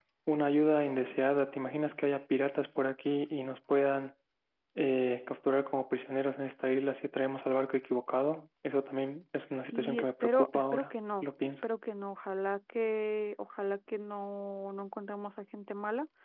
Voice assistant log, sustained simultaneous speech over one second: present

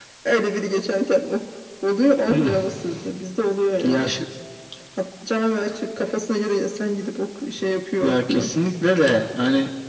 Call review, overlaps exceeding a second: none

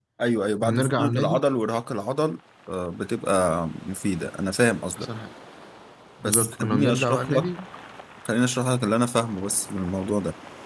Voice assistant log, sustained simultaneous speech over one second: present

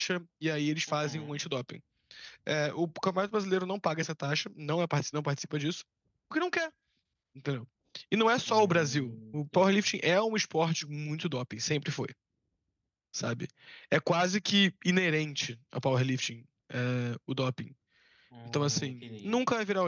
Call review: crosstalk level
present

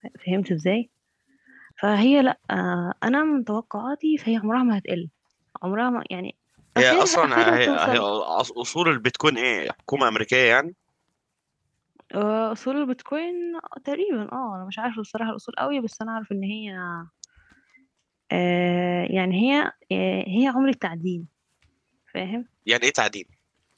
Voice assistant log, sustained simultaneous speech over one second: present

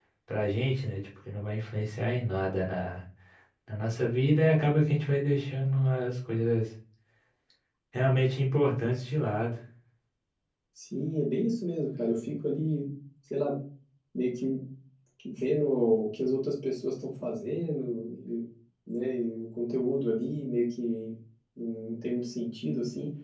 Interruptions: none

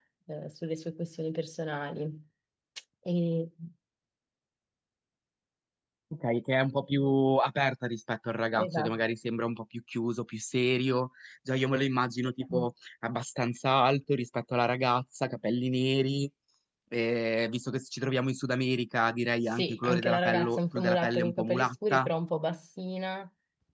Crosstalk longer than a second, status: present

